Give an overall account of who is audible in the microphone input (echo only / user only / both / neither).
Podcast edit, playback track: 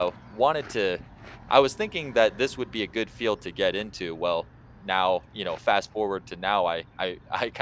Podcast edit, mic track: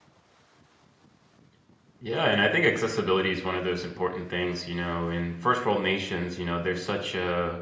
user only